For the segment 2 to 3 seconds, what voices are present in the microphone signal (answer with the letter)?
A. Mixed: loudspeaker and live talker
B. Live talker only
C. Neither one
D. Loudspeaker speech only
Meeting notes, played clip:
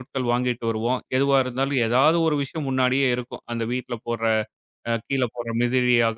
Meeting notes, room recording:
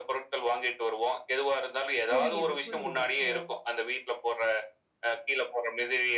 A